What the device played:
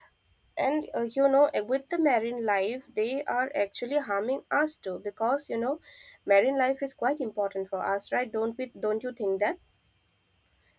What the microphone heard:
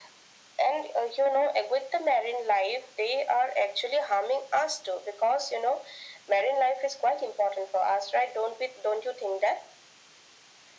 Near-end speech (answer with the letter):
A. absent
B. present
A